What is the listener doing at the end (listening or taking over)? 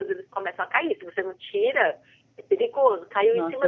listening